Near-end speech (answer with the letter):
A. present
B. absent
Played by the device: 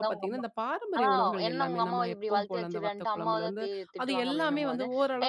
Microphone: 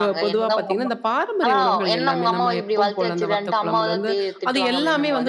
B